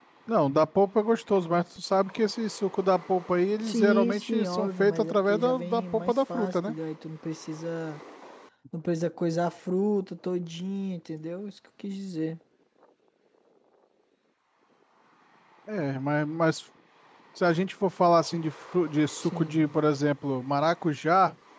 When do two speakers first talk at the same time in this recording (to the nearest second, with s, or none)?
4 s